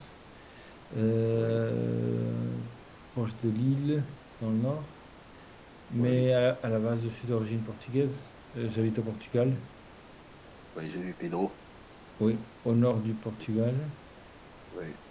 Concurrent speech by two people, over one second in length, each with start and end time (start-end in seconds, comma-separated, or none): none